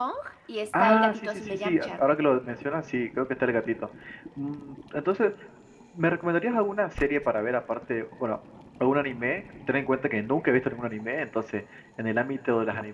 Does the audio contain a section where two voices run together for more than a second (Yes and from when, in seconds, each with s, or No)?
Yes, from 0.8 s